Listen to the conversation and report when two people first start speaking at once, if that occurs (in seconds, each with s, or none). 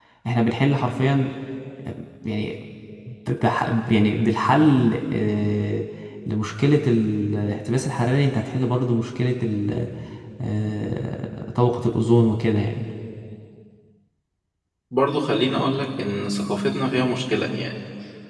none